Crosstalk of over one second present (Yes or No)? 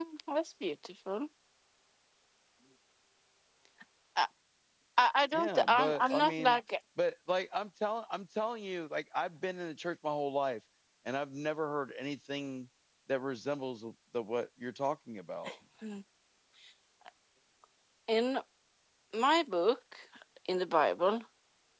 Yes